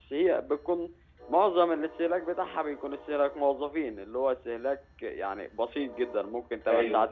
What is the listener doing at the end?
listening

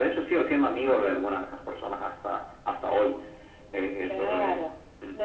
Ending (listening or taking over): taking over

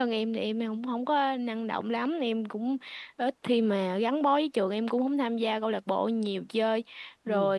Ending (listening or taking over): listening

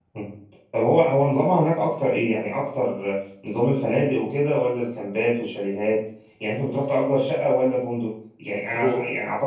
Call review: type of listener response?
listening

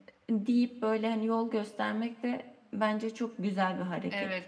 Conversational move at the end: taking over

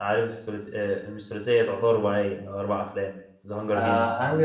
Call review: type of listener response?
taking over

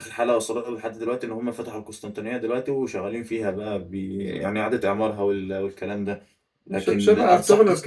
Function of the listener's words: taking over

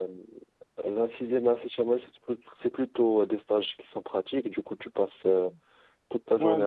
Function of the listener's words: taking over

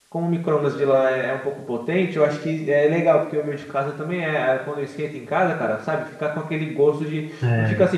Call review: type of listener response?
listening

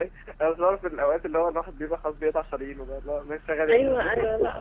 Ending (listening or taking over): taking over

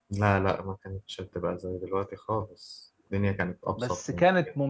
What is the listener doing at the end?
taking over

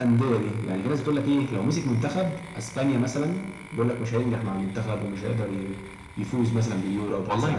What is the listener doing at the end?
taking over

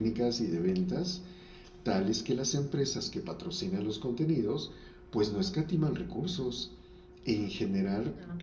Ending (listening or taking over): listening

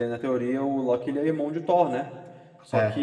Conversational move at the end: listening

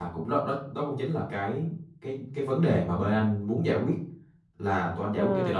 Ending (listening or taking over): listening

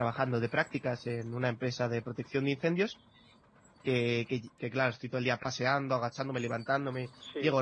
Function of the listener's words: listening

